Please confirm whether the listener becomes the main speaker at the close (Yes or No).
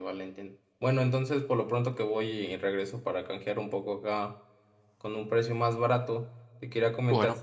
No